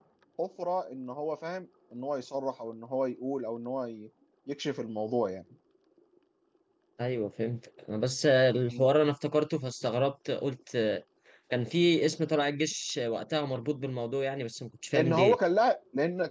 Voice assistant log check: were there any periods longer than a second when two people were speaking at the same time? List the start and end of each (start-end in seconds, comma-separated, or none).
none